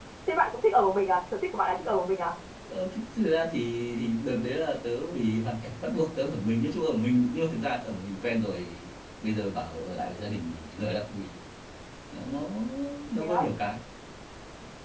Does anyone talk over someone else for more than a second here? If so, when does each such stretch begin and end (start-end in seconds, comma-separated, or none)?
none